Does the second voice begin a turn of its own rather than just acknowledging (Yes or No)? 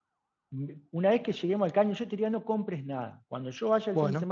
No